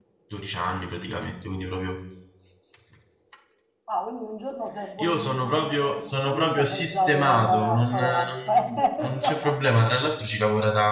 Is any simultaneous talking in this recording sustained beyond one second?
Yes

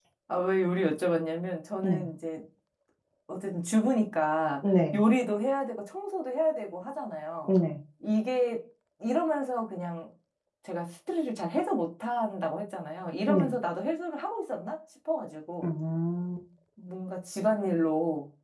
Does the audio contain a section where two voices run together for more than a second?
No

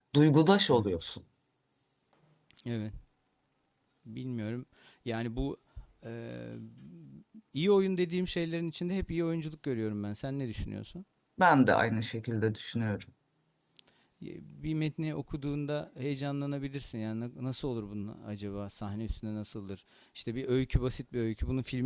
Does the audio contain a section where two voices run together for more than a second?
No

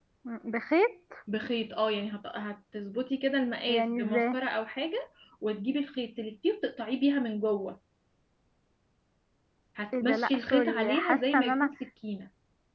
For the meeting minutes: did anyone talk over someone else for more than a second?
Yes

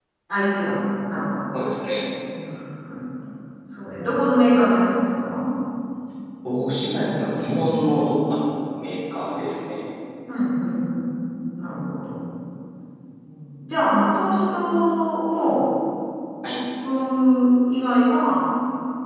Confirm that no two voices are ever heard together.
Yes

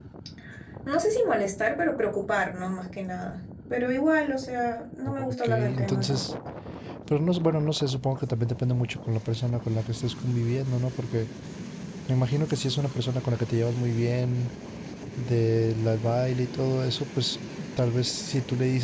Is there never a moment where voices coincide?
No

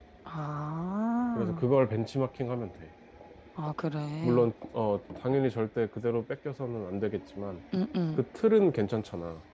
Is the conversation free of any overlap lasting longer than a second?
Yes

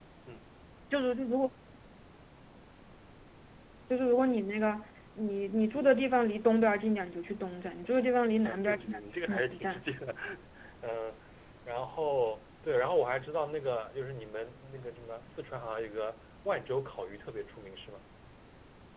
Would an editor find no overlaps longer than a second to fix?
No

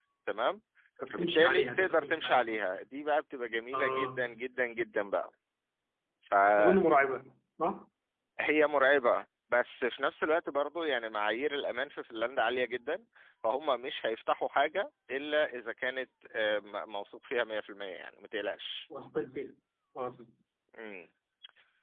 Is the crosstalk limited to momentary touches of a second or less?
No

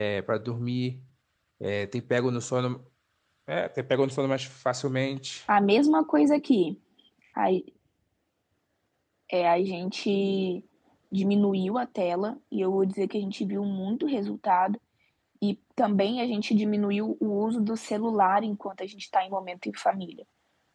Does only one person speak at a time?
Yes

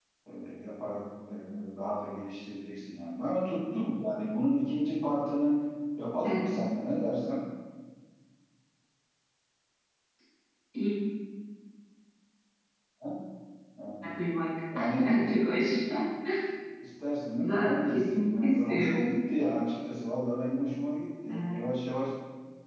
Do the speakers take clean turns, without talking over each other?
No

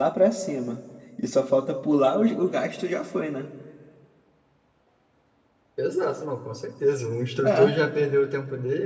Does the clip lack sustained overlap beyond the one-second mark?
Yes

